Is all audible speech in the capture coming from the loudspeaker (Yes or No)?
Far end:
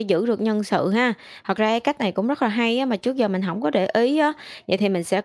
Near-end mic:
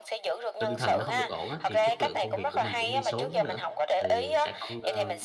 No